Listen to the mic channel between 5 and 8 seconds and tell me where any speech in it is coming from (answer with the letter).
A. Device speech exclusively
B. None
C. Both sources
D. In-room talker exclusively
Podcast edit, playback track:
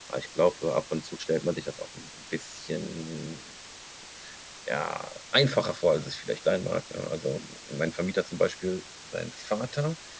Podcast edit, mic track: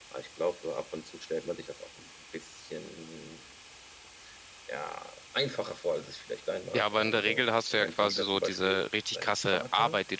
C